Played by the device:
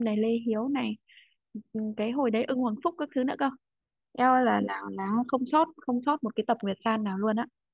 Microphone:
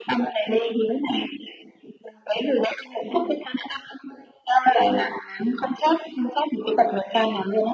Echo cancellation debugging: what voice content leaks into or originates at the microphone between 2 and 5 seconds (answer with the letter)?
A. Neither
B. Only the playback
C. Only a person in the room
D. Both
B